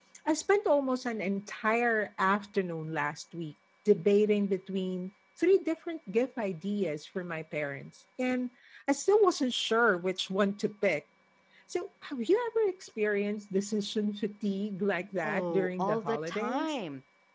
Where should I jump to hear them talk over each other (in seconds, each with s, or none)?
15.2 s